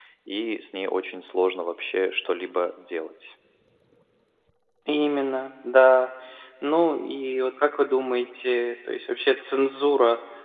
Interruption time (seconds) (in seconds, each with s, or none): none